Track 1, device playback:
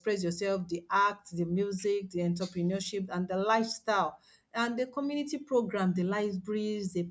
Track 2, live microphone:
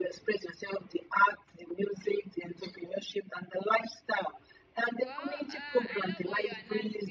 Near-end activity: present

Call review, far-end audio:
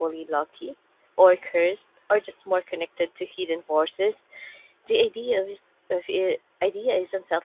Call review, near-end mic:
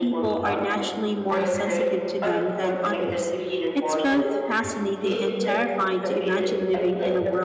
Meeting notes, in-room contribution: present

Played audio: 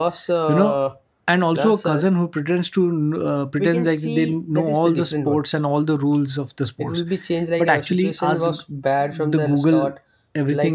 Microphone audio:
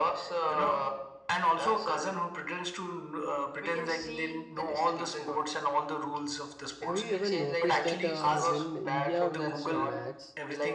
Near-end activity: present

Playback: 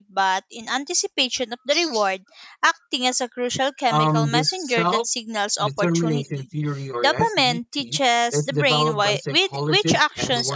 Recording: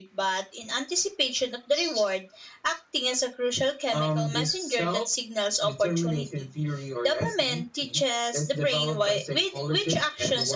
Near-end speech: none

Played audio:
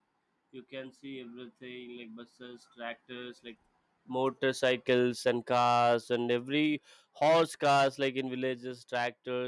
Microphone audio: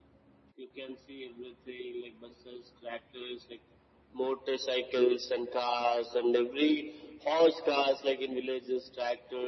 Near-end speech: none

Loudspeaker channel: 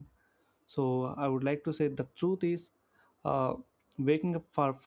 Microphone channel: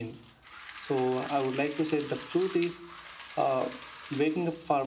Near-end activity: none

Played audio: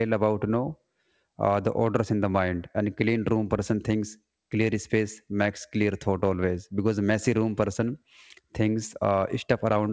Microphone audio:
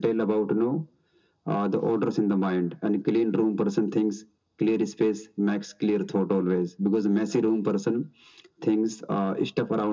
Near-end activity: none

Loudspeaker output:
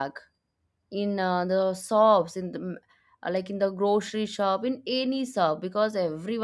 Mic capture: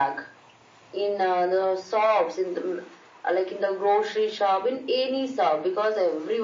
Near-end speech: none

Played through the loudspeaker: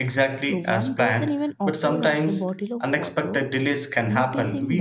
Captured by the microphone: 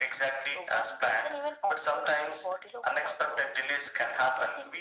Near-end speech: none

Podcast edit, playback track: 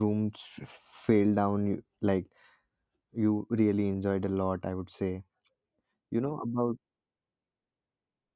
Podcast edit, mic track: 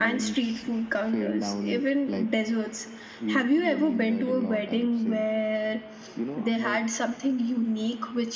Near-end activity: present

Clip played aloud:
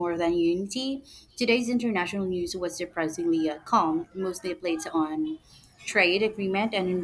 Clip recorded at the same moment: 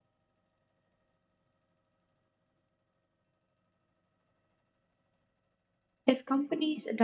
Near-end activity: present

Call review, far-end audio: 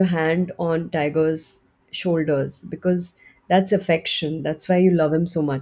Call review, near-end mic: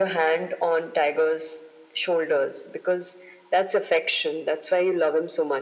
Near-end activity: none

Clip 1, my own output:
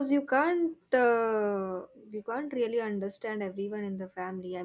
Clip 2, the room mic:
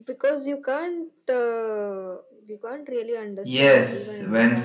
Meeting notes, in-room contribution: present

